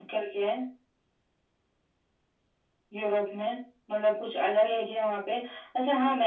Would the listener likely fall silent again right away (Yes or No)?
Yes